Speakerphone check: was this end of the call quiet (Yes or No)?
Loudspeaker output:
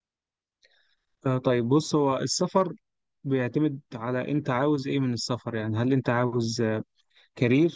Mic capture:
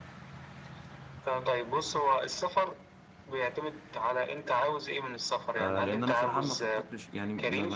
No